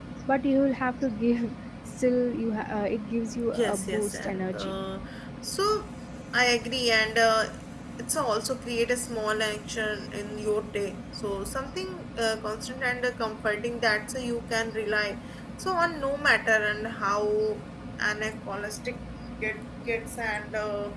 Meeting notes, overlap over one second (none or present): present